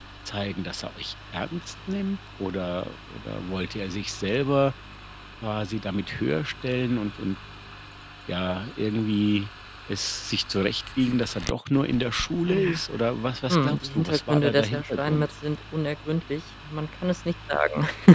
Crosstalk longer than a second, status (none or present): present